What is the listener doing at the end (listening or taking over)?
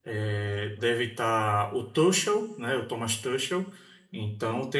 listening